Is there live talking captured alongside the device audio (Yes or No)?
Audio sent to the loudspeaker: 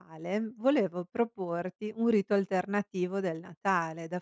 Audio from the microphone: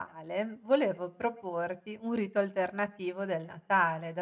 No